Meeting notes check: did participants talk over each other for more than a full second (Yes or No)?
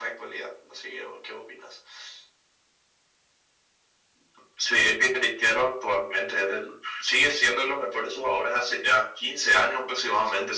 No